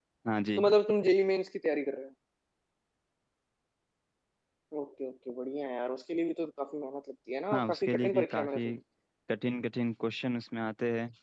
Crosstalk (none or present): present